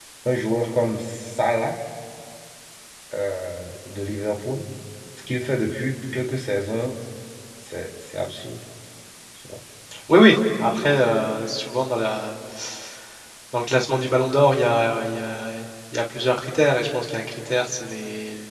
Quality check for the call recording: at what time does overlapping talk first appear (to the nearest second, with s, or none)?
none